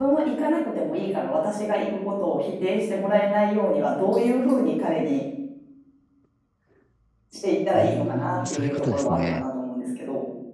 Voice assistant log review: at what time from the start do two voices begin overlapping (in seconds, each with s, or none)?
7.7 s